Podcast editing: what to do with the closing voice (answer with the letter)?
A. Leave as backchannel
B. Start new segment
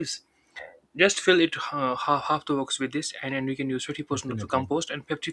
A